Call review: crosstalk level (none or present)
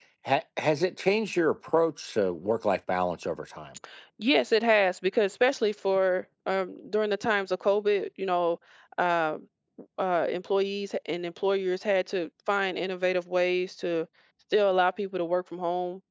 none